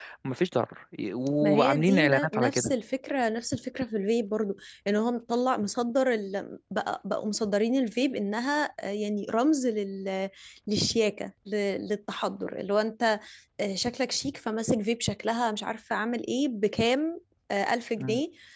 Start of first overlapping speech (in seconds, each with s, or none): 1.4 s